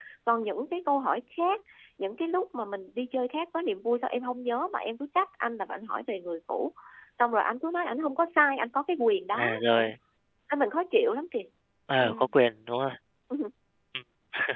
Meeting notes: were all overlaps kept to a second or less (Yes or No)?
Yes